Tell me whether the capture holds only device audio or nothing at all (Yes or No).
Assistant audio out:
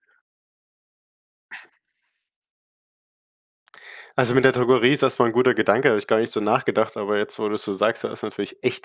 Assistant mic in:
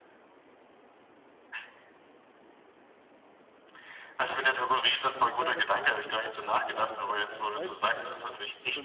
No